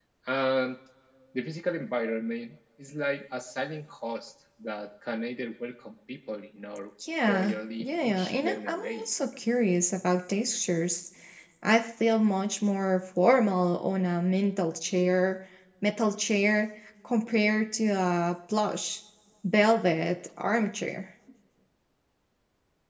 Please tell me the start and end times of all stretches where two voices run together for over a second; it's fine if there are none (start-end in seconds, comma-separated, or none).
7.3-9.1